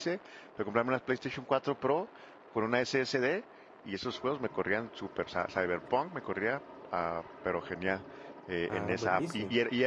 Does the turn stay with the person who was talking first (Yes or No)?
Yes